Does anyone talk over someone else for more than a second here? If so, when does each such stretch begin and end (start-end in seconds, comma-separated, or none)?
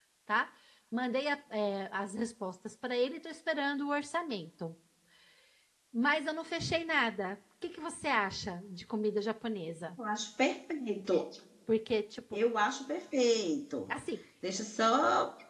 none